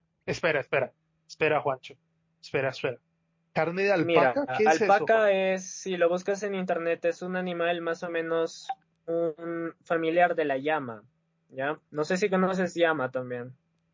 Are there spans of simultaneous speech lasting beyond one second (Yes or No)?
Yes